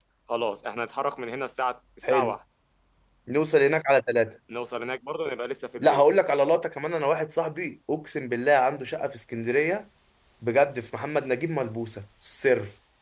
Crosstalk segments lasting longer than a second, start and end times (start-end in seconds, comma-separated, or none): none